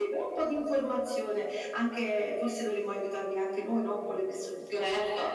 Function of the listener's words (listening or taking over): taking over